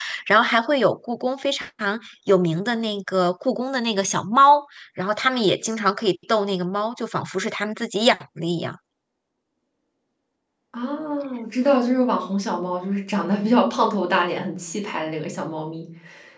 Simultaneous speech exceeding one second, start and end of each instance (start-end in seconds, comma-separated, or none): none